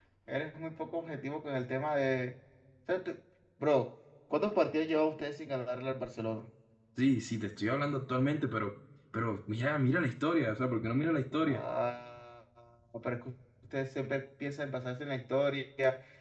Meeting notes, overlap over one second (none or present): none